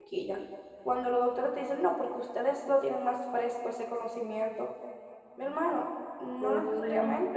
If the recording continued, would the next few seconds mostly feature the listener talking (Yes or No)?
No